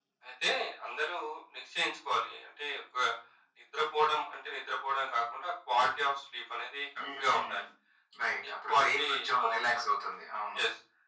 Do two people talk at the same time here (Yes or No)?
Yes